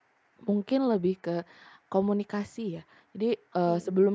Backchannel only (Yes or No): Yes